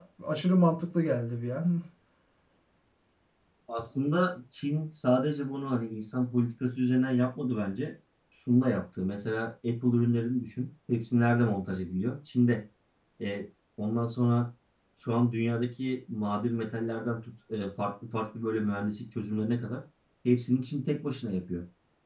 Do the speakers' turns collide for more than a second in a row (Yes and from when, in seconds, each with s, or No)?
No